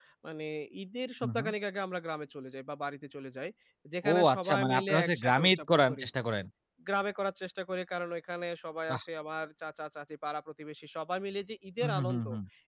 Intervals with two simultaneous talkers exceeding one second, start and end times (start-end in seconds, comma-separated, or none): 4.1-6.0